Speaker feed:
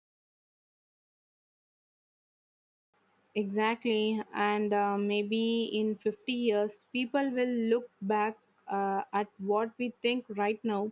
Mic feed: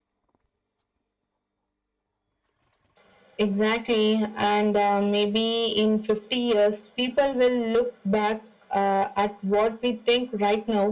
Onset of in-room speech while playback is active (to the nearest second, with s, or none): none